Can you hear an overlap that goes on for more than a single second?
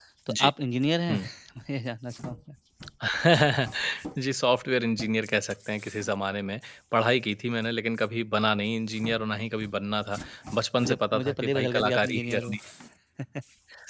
Yes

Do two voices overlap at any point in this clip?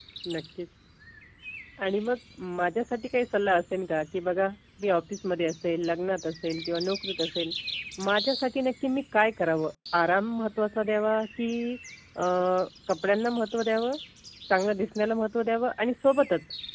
No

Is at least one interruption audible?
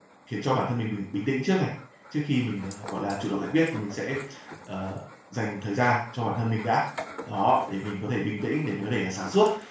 No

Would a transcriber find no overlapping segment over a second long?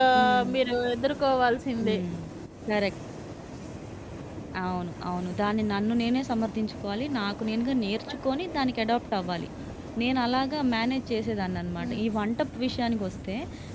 Yes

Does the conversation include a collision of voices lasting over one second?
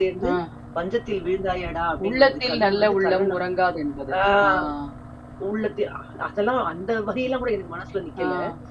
Yes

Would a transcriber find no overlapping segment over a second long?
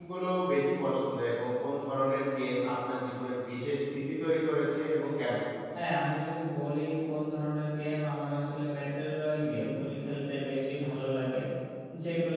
Yes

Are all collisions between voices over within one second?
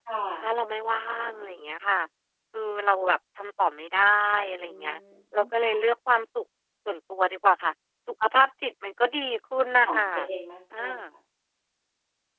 Yes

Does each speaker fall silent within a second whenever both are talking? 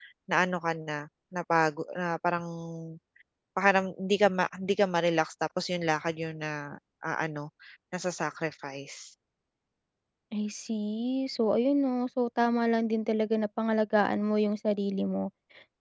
Yes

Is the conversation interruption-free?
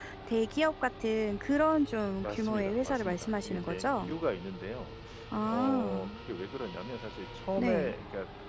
No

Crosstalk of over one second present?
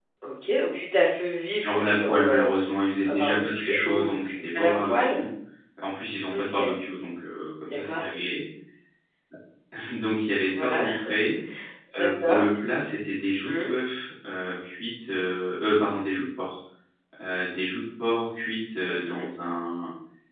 Yes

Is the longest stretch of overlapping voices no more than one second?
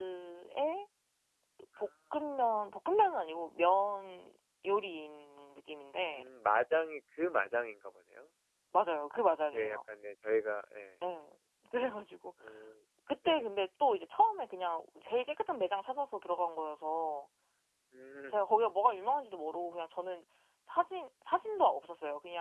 Yes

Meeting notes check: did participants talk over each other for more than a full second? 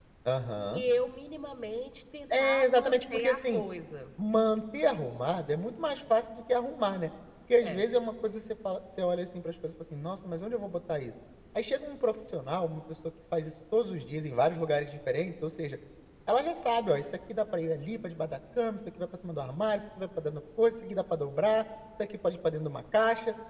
Yes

